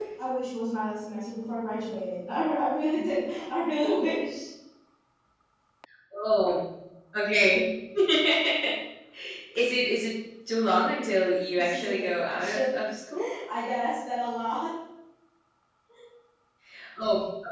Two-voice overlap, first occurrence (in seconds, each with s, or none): 11.6 s